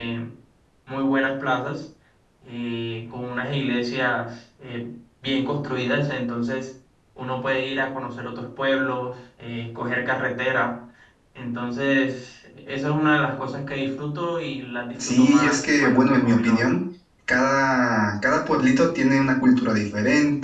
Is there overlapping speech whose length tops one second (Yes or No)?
Yes